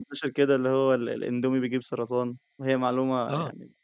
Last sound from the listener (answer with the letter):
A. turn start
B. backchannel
A